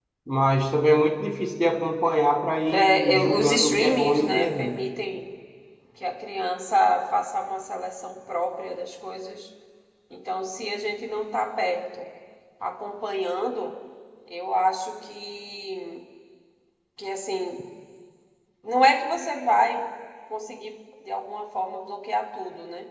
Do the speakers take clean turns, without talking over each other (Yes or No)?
No